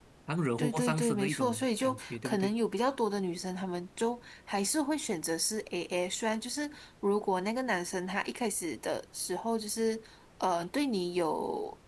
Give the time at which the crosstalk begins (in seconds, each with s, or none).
0.6 s